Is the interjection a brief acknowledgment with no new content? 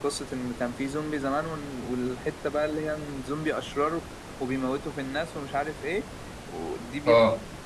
Yes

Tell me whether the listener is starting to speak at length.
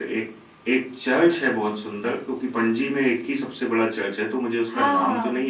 Yes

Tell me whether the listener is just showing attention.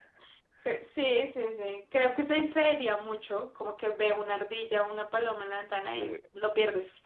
Yes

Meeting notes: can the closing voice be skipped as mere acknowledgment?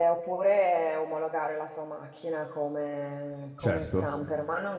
Yes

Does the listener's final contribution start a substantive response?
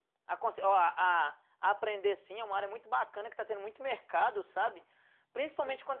No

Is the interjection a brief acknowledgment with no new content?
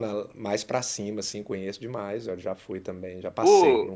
No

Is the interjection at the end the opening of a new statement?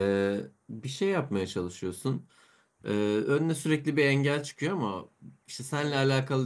No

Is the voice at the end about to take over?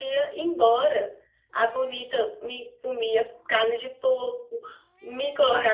No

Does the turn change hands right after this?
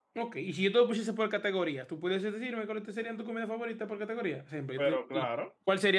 No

